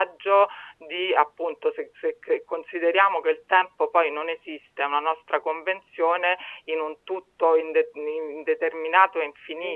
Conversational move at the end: taking over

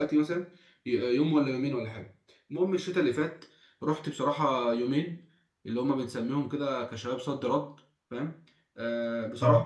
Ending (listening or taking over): listening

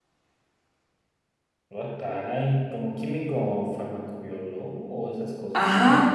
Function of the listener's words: taking over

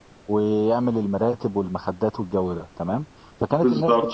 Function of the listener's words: listening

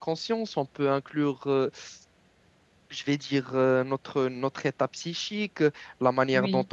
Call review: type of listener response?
listening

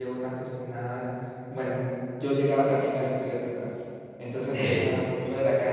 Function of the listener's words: listening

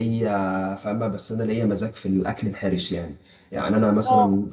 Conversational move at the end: listening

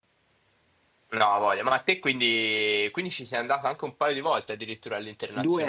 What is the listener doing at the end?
taking over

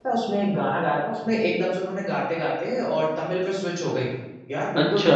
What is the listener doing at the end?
listening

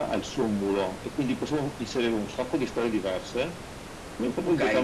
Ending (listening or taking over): taking over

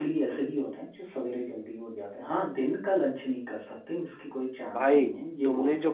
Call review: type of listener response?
taking over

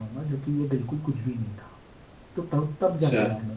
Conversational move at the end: listening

